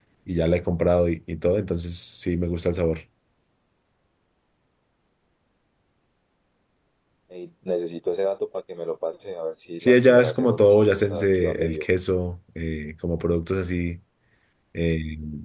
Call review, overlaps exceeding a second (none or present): present